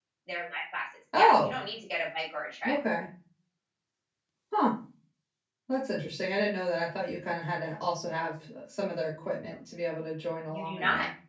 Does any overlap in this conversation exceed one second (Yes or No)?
No